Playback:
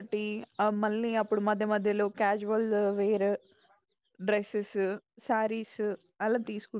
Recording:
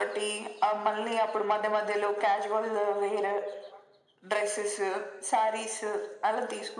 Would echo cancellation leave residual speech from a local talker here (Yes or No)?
No